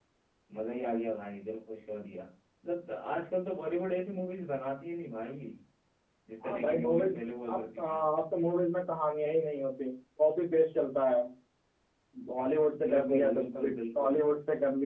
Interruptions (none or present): present